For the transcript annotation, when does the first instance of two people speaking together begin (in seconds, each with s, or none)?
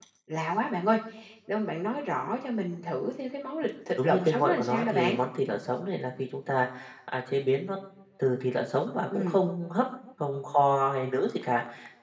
3.9 s